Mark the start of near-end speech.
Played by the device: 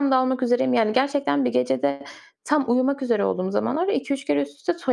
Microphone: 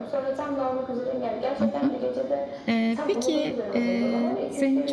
1.6 s

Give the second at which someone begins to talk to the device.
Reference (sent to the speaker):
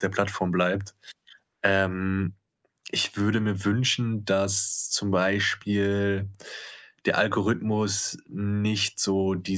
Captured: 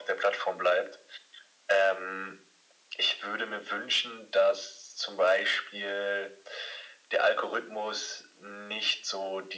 none

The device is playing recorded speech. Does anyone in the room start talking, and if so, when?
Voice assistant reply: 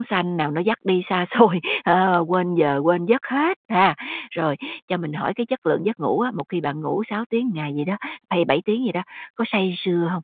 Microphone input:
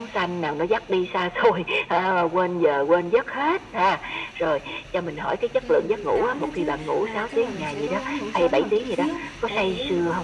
5.6 s

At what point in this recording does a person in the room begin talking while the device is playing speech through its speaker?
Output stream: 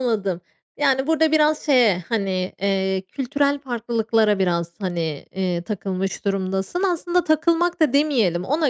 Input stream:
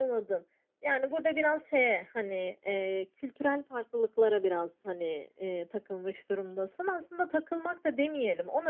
none

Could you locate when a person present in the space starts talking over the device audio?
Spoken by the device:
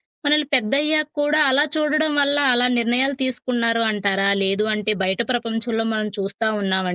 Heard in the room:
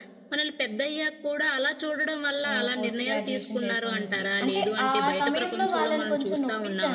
2.5 s

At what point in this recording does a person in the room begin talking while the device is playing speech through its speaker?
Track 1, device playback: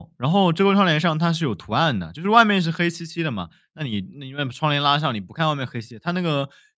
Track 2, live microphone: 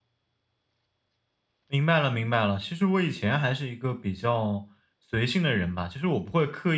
1.7 s

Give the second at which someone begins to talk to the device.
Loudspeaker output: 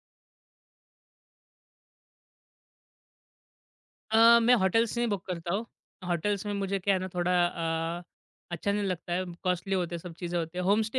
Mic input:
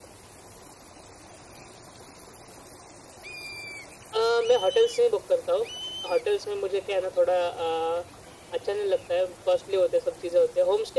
none

